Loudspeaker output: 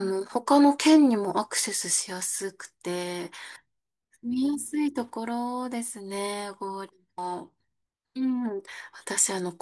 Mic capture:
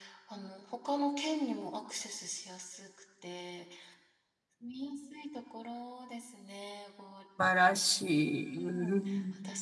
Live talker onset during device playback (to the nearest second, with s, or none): 7 s